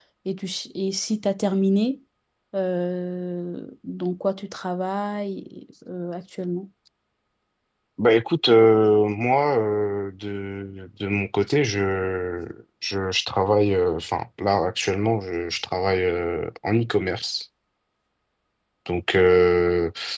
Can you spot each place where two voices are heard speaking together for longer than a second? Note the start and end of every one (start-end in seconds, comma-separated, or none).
none